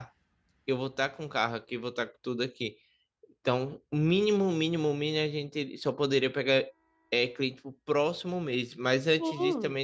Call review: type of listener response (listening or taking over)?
listening